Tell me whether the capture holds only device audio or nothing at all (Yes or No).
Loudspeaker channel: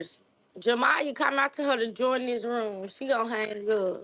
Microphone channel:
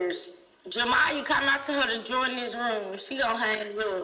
Yes